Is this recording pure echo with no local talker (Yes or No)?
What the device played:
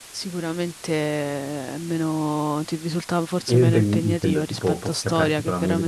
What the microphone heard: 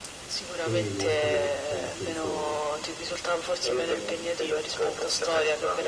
No